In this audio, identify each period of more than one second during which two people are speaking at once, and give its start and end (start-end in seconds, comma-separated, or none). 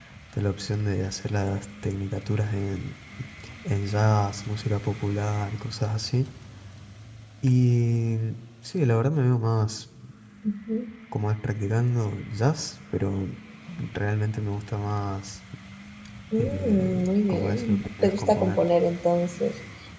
16.4-18.6